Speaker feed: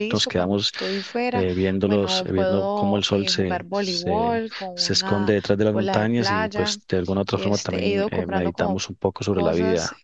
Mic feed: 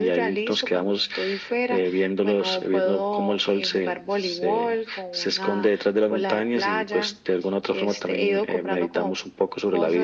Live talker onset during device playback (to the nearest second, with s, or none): none